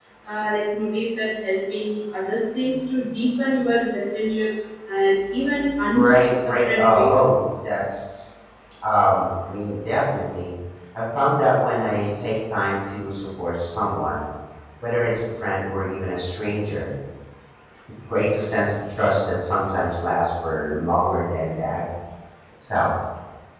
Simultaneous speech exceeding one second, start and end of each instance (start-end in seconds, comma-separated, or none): 5.9-7.2